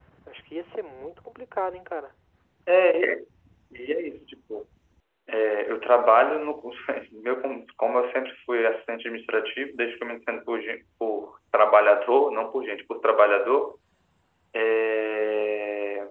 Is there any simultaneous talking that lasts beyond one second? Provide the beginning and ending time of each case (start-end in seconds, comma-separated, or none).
none